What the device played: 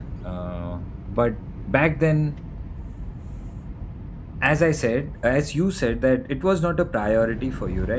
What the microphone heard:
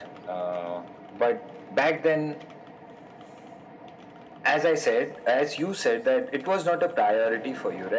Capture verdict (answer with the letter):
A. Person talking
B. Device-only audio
B